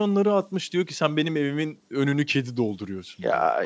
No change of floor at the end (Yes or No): Yes